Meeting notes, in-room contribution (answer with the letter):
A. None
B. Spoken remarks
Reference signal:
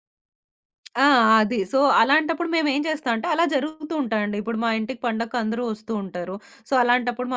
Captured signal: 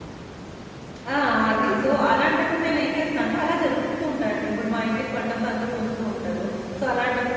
A